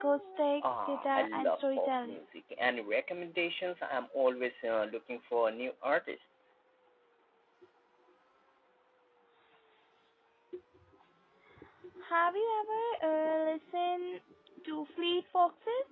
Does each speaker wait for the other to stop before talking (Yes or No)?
No